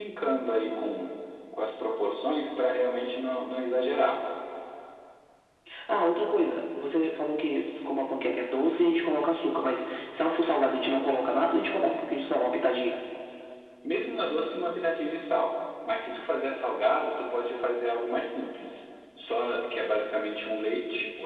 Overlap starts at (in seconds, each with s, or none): none